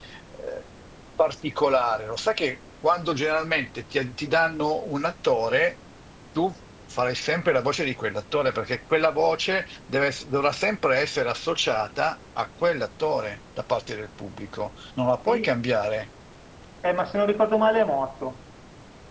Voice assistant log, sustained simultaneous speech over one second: none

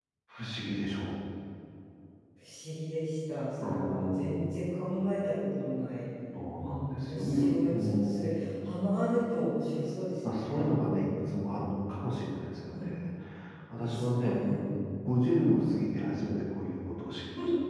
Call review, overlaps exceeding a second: present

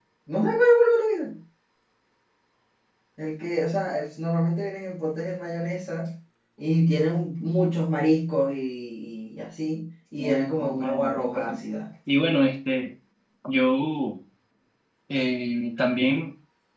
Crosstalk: present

